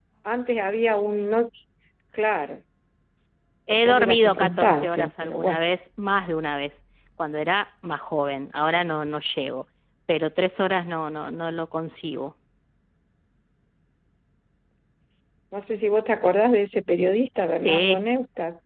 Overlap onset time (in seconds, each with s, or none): 3.7 s